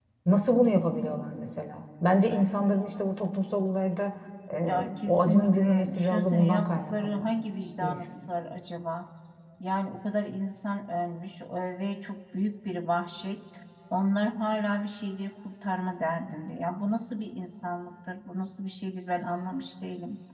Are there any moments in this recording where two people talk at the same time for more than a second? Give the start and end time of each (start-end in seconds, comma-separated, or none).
4.6-7.3